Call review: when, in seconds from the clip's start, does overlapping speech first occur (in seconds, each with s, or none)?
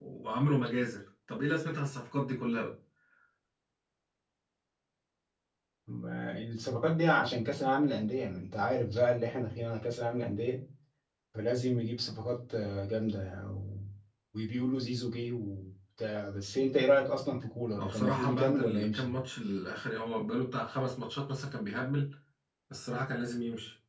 17.8 s